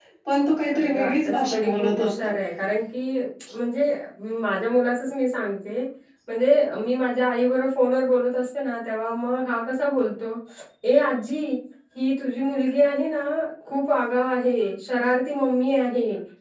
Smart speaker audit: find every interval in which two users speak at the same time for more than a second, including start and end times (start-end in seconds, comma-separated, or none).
0.7-2.4